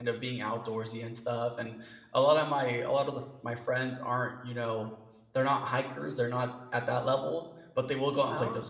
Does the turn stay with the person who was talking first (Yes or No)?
Yes